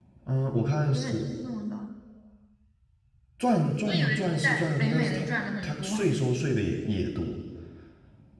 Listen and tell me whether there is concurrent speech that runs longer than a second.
Yes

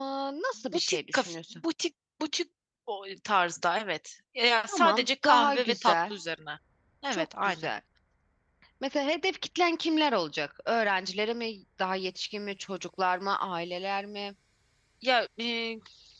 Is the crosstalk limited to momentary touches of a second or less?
No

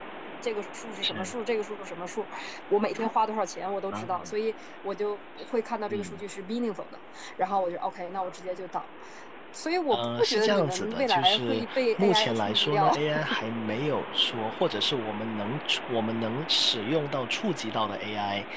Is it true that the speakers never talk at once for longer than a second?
No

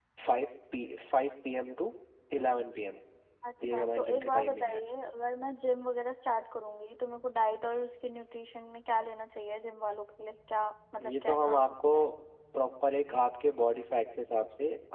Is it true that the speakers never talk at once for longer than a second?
No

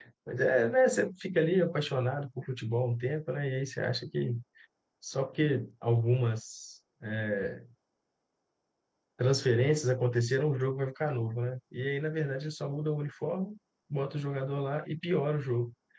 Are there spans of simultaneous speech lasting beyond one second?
No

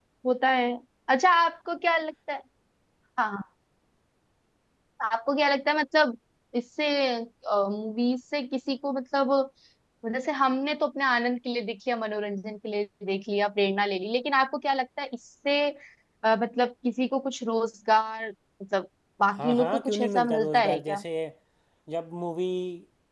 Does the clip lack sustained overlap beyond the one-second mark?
No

